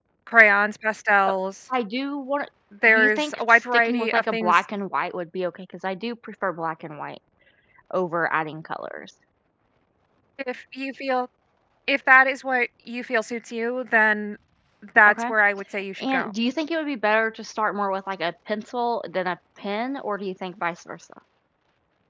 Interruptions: present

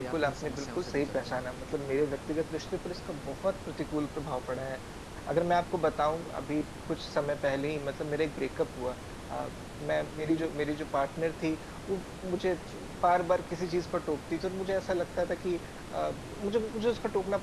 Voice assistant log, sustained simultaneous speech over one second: present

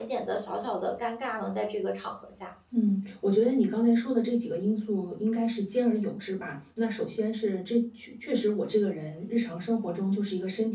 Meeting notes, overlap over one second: none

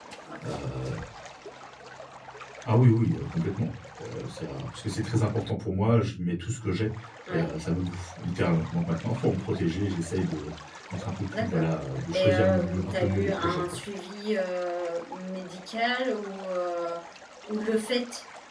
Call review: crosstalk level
present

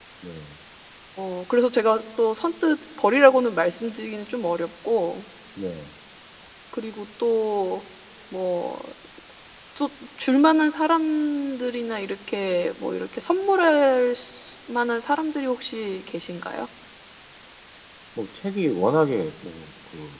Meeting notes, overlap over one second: none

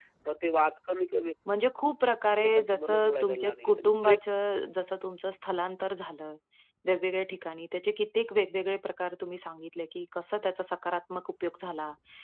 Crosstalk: present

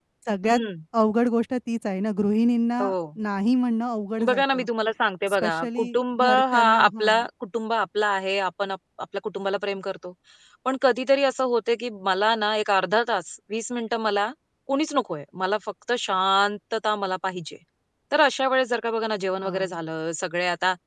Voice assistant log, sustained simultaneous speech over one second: present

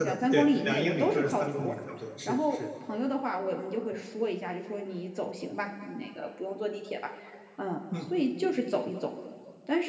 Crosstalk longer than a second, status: present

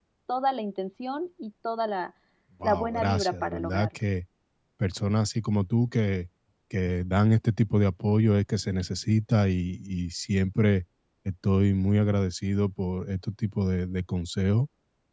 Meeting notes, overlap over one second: present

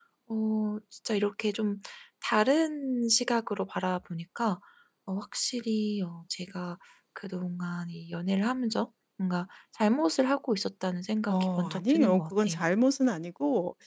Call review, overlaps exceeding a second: present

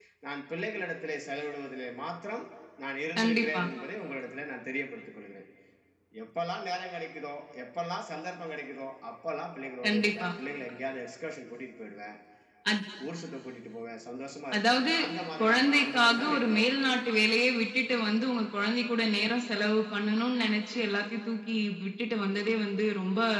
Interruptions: present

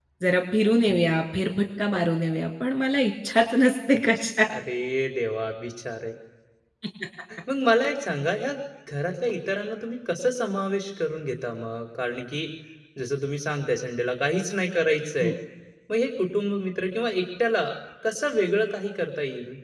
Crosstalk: none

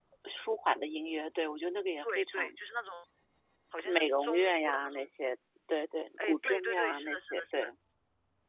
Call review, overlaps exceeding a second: present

